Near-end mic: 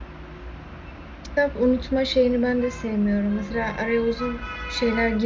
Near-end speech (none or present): present